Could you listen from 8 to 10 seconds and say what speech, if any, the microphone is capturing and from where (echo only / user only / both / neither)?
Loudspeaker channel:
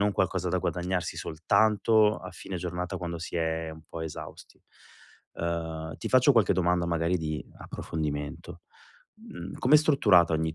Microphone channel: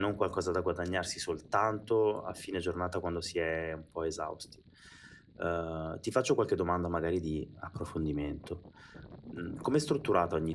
echo only